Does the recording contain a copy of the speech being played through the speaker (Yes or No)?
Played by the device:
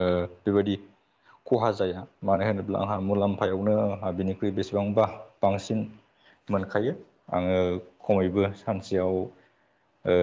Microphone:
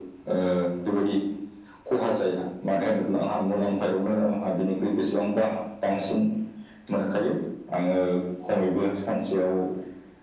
Yes